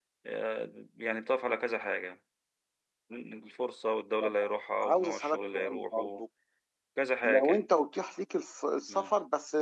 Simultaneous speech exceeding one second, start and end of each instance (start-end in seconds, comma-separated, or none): 4.8-6.2